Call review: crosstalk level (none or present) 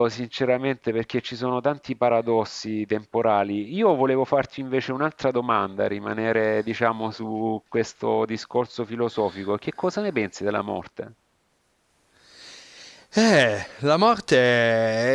none